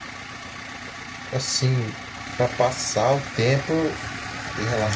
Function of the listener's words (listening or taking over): listening